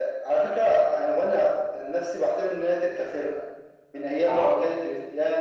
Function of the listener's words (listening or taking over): listening